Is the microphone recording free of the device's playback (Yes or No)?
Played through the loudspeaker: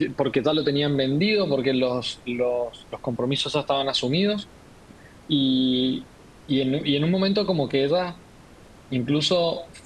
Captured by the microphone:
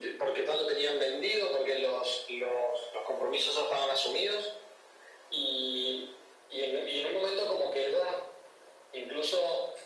No